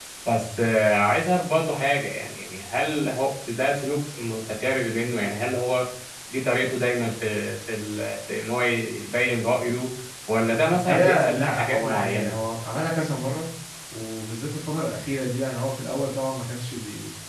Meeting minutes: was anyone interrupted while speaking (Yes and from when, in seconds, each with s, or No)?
Yes, from 10.7 s